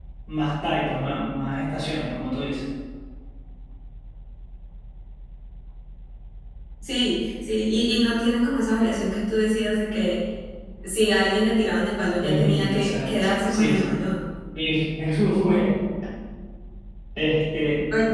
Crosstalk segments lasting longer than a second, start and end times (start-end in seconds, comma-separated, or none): 12.2-13.9